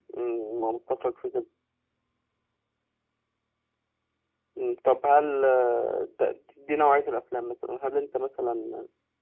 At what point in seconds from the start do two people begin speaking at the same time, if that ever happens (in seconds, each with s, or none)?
none